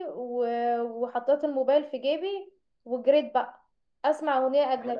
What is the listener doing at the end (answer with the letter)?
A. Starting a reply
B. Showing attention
B